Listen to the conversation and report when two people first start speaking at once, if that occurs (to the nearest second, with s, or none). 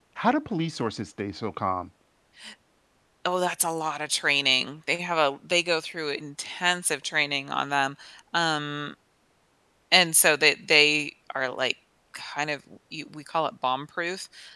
none